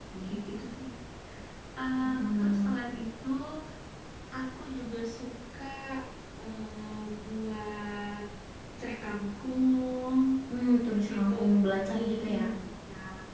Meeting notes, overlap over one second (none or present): present